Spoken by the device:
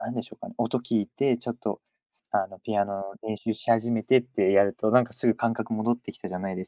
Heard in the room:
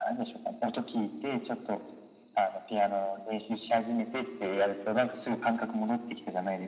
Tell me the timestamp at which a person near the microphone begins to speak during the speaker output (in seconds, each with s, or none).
none